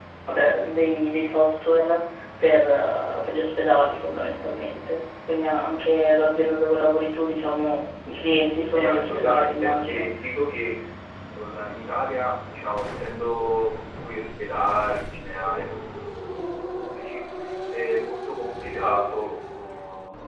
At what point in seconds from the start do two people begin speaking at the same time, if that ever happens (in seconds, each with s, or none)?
8.7 s